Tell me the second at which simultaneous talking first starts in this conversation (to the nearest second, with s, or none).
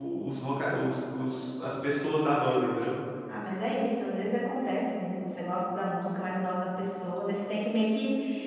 none